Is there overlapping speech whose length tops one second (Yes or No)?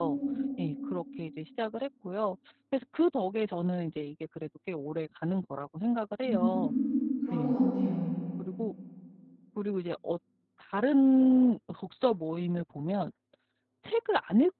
No